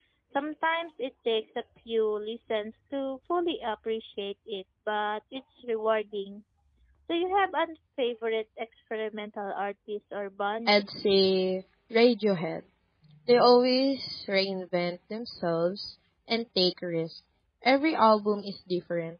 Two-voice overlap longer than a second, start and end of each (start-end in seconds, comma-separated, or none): none